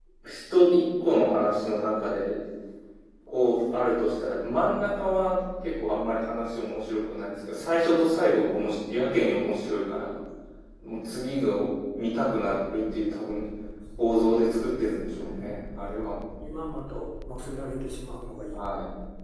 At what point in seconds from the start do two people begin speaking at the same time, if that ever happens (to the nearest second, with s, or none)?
14 s